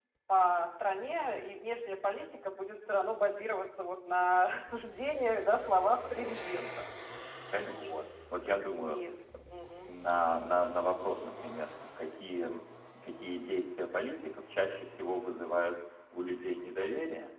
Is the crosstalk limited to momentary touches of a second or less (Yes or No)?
Yes